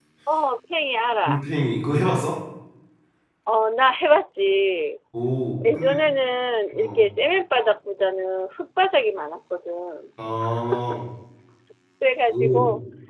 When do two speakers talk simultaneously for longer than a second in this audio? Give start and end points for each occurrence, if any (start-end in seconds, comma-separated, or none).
none